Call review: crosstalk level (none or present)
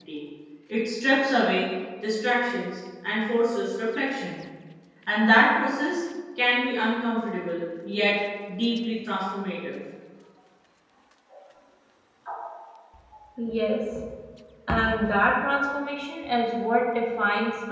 none